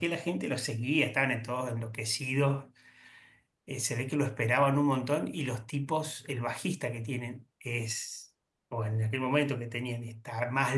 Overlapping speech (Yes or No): No